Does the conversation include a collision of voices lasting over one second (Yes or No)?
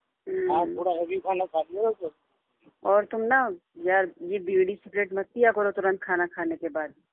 No